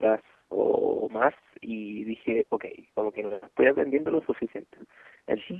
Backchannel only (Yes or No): Yes